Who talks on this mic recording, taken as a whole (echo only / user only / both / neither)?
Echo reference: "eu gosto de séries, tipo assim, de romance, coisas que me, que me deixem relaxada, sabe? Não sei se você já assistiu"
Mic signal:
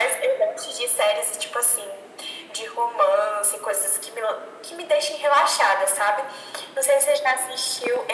echo only